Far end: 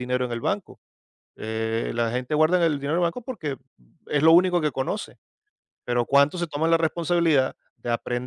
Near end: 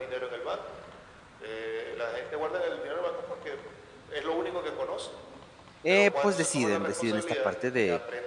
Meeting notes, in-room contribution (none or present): present